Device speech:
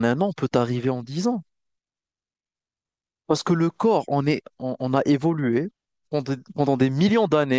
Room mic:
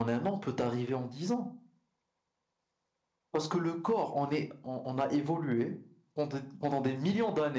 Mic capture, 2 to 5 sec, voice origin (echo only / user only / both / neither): echo only